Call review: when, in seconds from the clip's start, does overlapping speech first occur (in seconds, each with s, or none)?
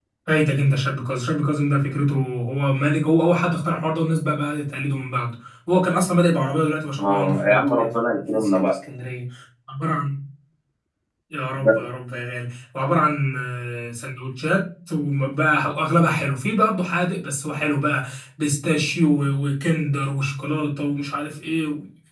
7.0 s